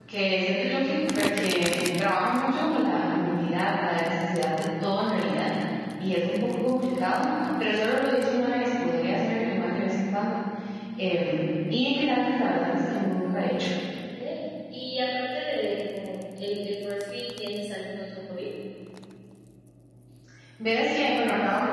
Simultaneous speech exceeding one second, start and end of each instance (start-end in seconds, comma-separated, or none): none